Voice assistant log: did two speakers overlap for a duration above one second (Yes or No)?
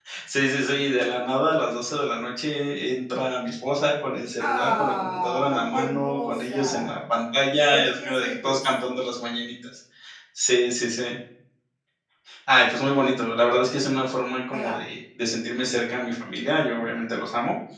Yes